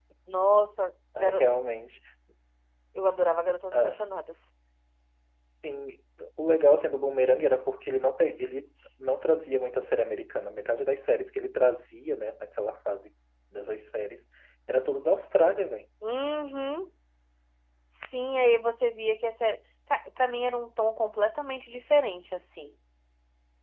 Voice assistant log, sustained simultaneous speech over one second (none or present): none